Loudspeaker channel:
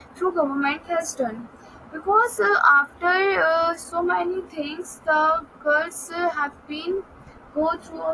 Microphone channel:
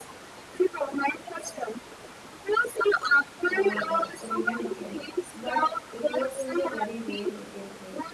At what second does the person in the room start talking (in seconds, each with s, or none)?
3.4 s